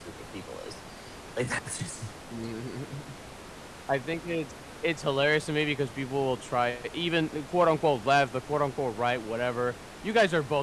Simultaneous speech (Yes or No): No